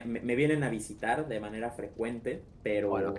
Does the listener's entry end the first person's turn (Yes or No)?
Yes